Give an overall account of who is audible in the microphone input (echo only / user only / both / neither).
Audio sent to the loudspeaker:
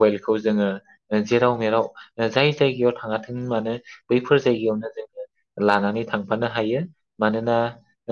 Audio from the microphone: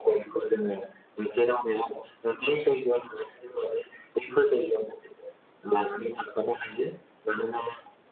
echo only